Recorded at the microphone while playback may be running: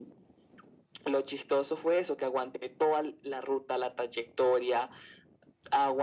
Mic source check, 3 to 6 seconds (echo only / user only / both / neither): echo only